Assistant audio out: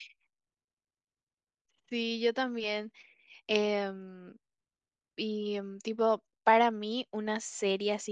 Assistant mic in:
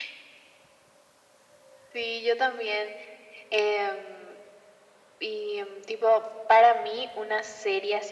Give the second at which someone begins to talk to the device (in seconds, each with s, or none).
none